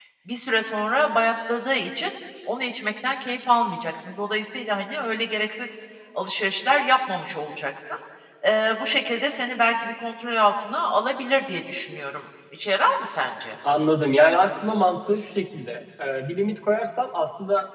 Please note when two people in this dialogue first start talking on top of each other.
none

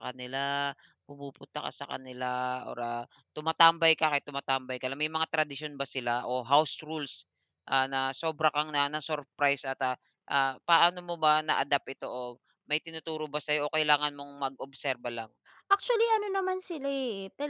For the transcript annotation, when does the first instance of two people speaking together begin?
none

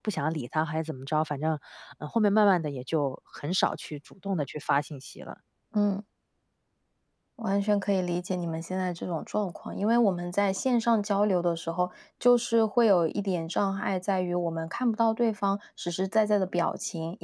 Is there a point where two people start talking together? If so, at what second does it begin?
none

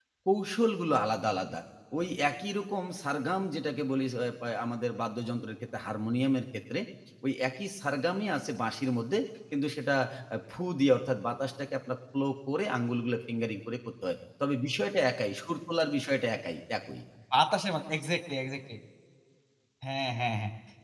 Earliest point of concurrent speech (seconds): none

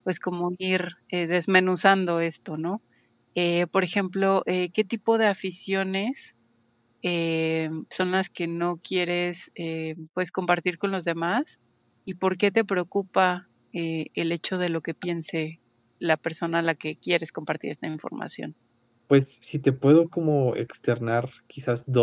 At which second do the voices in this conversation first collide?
none

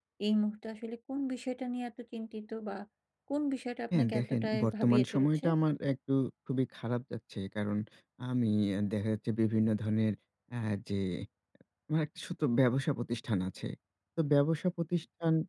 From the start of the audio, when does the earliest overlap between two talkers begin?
3.9 s

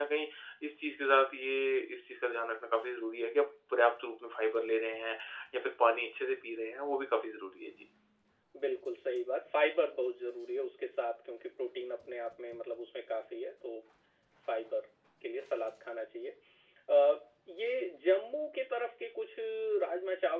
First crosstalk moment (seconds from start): none

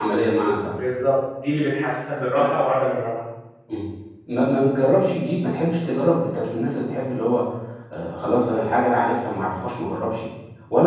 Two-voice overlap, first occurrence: none

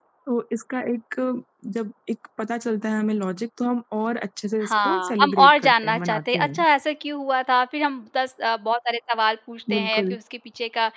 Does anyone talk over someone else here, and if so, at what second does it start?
4.6 s

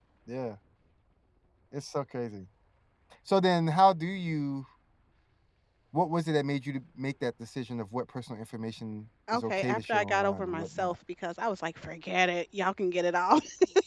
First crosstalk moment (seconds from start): 9.3 s

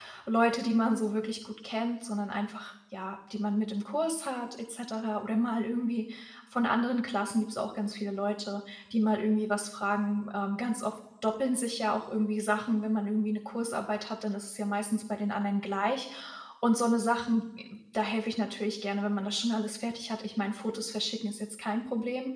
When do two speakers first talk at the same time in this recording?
none

